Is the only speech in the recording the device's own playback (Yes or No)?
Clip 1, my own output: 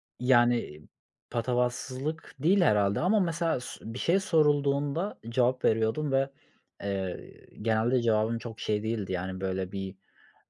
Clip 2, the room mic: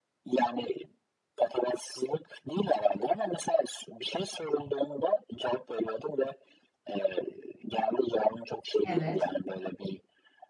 No